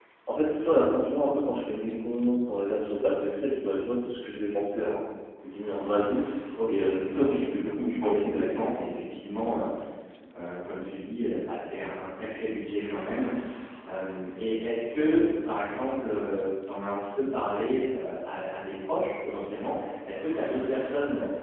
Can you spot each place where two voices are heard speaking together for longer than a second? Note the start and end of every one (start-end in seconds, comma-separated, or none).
6.7-8.6